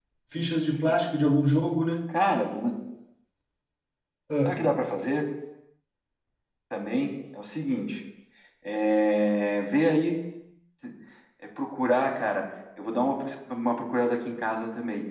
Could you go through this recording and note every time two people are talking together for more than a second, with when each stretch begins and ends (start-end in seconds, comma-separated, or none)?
none